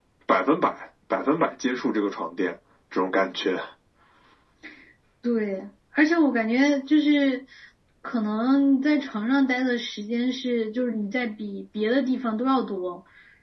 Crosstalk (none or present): none